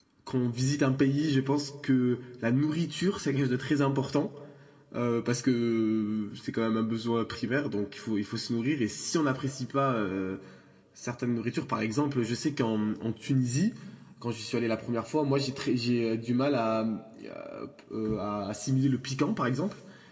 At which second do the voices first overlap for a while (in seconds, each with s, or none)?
none